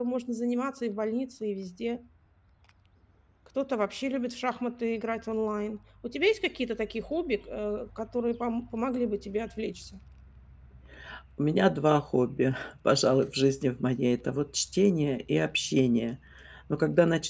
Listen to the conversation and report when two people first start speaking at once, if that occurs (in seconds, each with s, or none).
none